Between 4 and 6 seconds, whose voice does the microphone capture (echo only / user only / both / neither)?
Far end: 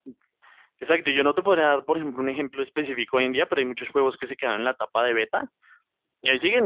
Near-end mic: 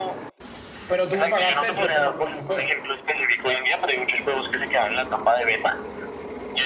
echo only